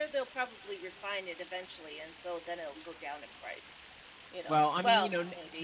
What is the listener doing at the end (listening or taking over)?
taking over